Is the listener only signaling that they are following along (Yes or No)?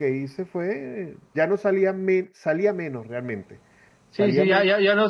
No